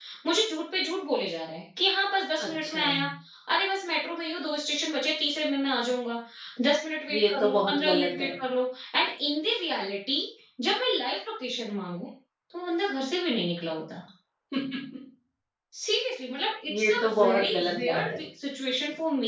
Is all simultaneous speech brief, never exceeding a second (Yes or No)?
No